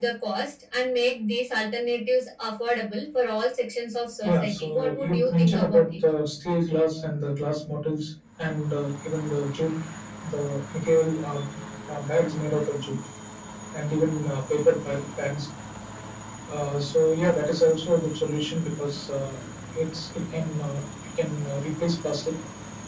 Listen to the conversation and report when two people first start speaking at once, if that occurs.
4 s

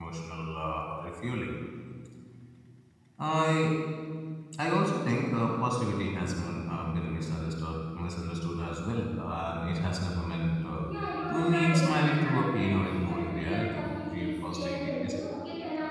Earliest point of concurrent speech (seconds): 11 s

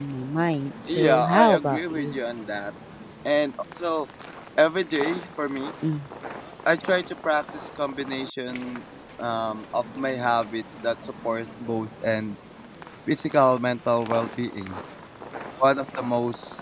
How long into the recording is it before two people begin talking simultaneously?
1 s

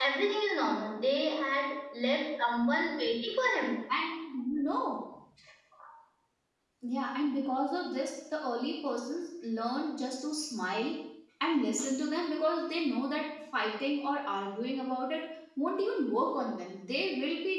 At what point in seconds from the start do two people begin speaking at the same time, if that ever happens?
none

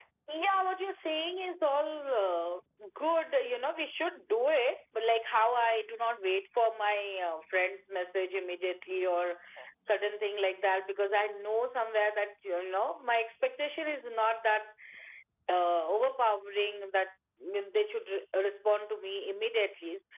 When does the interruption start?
none

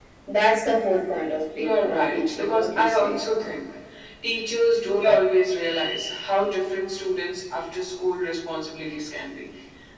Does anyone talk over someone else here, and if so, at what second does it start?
1 s

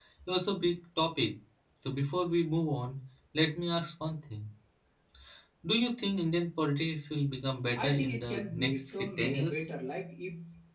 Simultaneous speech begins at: 8 s

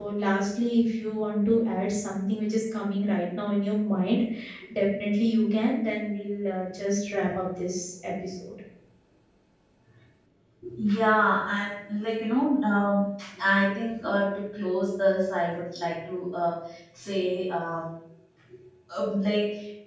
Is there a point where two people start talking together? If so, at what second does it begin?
none

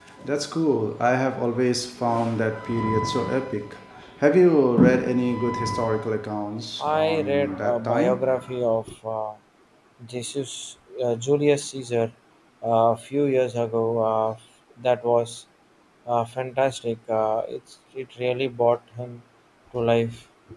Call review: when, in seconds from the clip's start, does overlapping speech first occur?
7 s

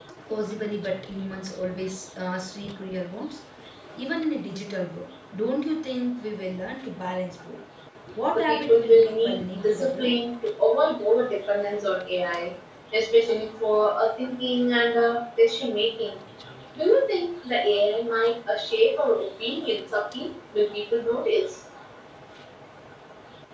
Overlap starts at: 8 s

